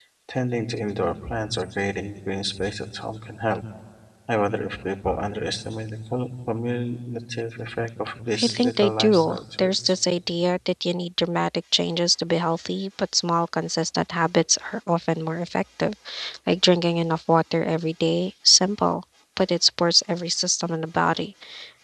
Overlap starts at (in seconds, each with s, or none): 8.3 s